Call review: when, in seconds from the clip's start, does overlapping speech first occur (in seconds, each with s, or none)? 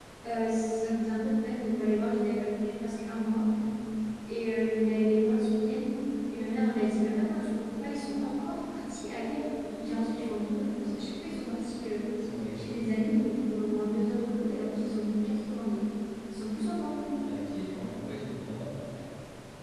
none